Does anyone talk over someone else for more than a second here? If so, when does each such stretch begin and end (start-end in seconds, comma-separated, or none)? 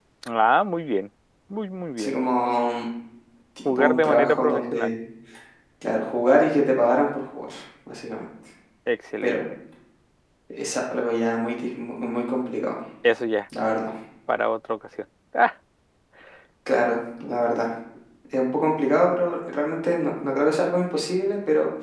3.6-5.0